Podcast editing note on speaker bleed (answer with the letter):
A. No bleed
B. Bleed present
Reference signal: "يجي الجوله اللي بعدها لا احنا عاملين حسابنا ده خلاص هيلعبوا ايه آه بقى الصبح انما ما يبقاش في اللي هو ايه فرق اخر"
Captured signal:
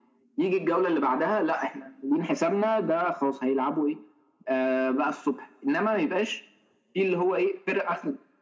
B